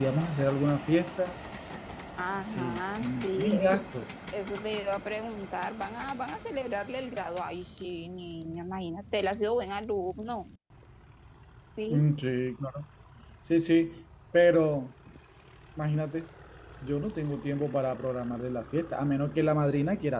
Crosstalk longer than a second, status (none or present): present